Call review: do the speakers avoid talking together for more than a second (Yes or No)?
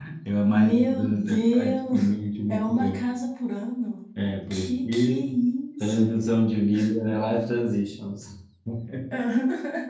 No